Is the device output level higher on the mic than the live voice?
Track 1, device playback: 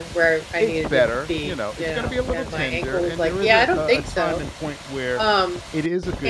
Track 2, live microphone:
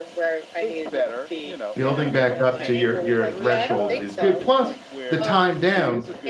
No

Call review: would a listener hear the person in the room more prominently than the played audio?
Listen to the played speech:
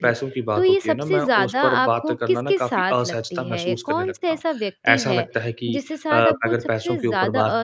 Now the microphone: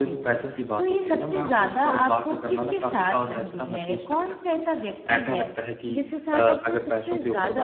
No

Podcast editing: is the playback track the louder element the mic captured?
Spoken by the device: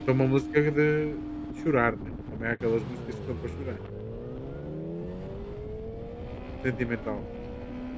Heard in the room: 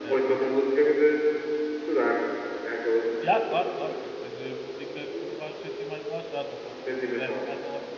Yes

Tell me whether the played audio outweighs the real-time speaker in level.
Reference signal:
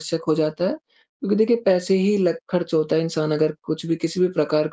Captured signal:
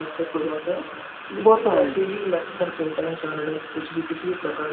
No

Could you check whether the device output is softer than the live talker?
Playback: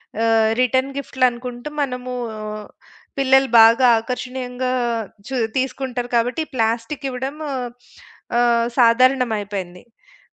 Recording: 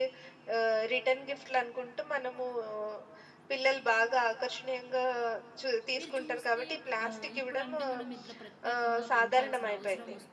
No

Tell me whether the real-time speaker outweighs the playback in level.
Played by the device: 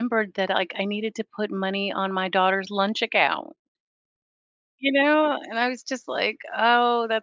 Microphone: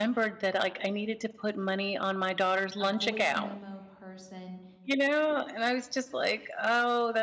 No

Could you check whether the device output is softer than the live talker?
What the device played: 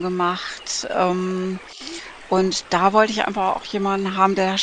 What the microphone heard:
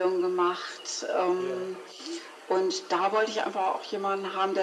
No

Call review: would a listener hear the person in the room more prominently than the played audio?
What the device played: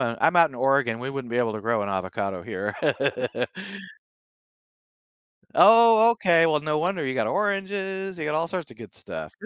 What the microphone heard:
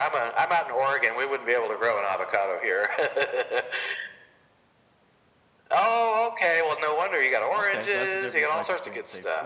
No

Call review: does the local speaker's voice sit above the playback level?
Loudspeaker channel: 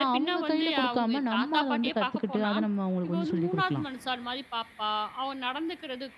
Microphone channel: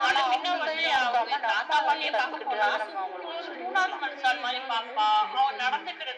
No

